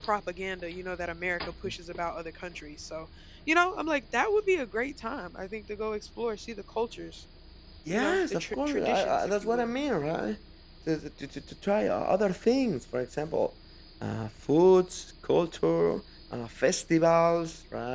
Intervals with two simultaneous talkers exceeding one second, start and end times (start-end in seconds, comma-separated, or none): 7.9-9.7